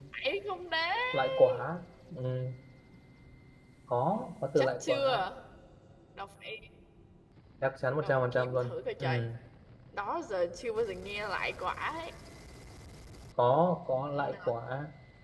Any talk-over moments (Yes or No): Yes